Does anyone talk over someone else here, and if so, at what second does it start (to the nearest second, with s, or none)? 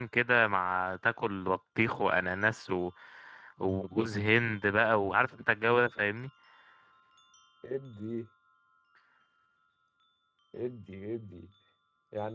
none